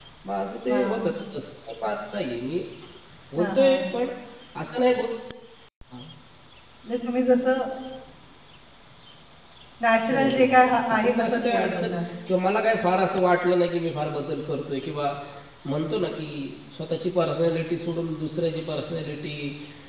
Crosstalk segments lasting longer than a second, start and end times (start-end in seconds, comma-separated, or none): 10.1-11.8